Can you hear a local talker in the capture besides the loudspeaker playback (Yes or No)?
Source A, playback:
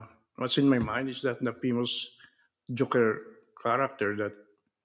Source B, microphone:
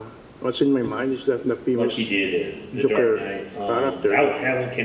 Yes